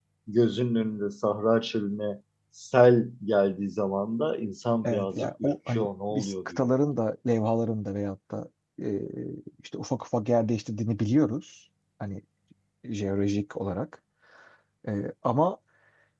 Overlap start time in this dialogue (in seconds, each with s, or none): 4.8 s